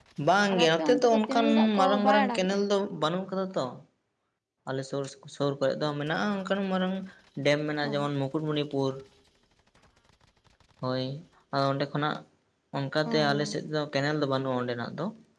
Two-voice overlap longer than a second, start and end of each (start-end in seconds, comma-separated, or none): 0.5-2.5